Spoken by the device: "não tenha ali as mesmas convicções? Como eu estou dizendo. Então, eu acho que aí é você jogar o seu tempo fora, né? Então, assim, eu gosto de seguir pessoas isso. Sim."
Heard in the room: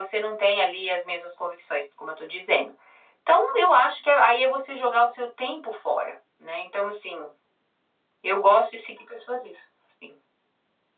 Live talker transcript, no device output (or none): none